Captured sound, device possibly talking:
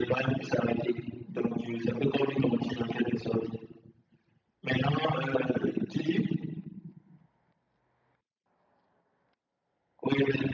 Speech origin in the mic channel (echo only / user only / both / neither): echo only